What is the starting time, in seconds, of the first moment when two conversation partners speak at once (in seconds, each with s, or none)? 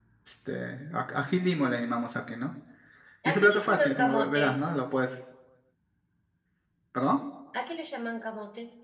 3.2 s